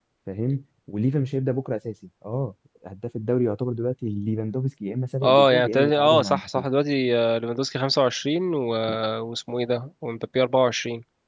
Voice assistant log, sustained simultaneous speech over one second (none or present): present